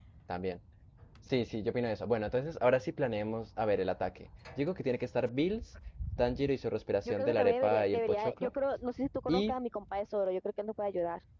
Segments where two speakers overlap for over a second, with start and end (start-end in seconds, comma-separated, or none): 7.0-8.5